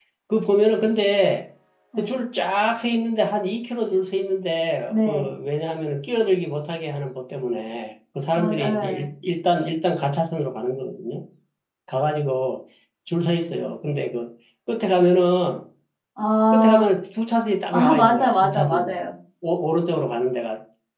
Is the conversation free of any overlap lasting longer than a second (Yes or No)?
No